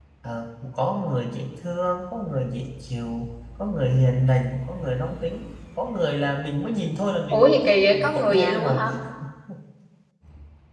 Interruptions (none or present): present